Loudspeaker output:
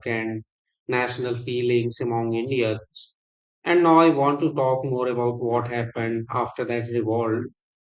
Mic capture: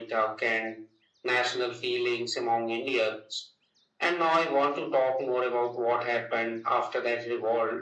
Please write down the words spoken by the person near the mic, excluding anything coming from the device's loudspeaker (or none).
none